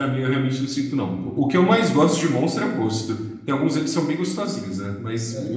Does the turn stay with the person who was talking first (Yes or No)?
No